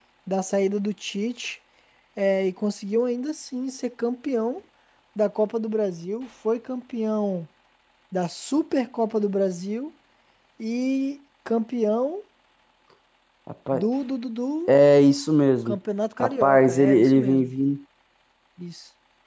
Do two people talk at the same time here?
Yes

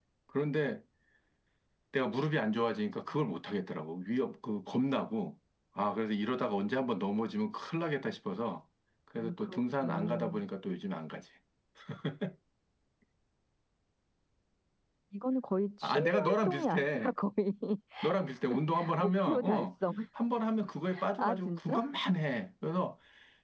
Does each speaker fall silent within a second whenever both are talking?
No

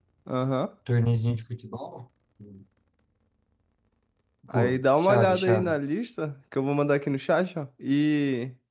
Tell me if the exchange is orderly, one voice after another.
No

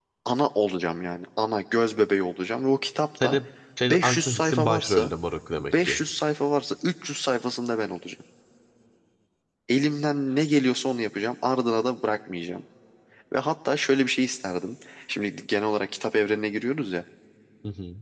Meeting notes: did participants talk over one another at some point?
Yes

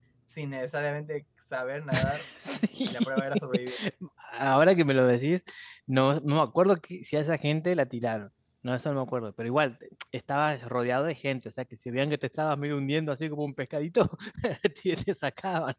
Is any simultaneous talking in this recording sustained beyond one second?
No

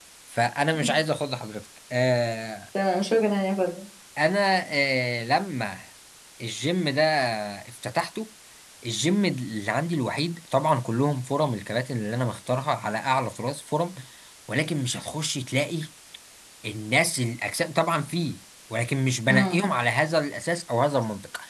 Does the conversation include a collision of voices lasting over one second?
No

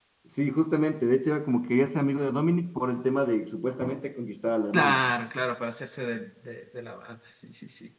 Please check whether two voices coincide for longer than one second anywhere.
No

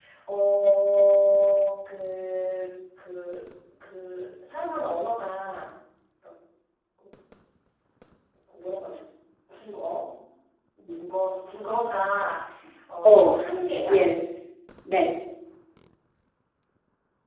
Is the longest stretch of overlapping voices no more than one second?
Yes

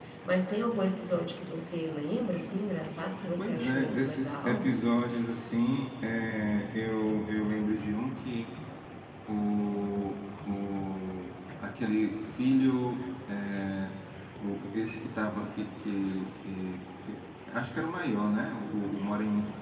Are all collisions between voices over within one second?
No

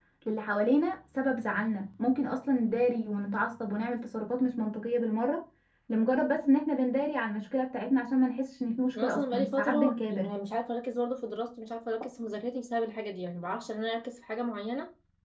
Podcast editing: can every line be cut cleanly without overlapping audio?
No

